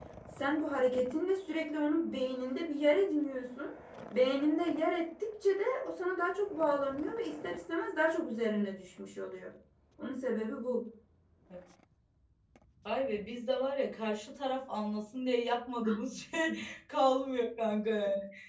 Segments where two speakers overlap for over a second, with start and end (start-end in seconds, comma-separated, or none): none